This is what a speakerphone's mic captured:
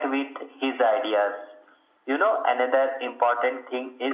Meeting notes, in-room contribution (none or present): none